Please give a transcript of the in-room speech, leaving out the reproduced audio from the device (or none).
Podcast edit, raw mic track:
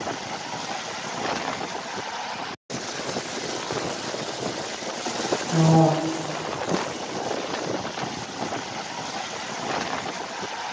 ਹਾਂ।